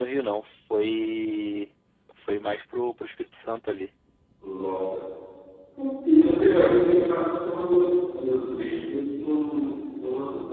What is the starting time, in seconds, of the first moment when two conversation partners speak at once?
none

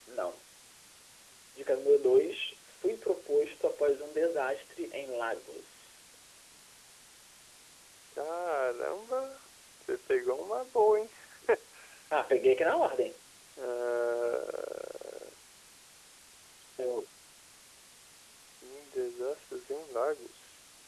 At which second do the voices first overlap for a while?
none

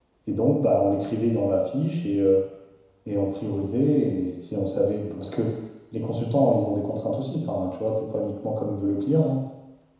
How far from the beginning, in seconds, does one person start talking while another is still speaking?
none

